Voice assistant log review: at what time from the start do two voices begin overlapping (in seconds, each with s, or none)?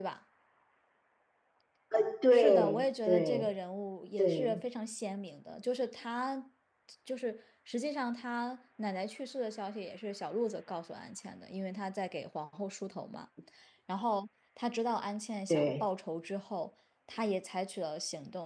2.3 s